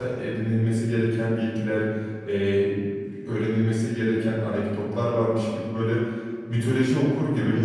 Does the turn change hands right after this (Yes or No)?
Yes